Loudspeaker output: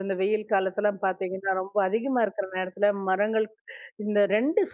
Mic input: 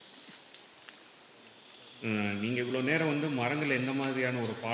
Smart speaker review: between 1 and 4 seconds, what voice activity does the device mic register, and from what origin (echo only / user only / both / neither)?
user only